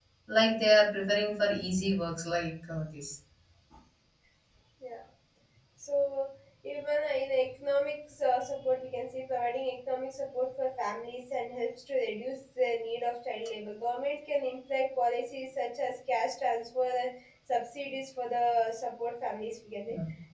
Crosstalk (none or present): none